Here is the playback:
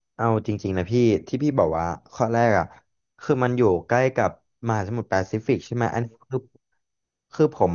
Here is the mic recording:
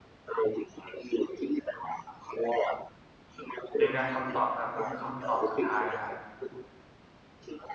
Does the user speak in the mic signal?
Yes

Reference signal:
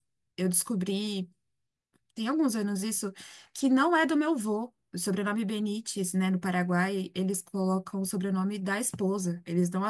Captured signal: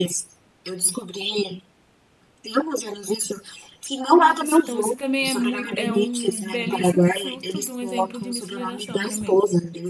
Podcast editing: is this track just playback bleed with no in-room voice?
No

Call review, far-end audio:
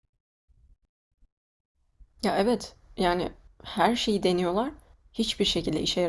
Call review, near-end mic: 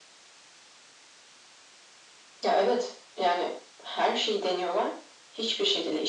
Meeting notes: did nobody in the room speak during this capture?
Yes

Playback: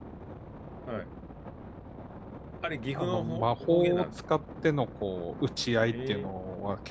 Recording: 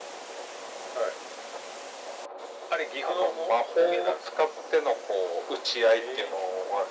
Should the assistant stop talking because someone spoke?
No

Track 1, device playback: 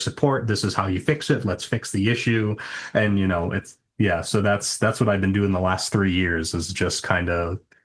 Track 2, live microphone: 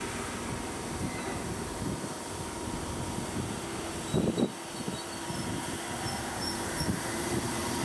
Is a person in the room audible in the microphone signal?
No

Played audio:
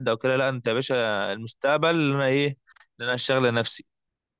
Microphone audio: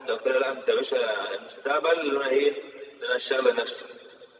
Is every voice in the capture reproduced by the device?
Yes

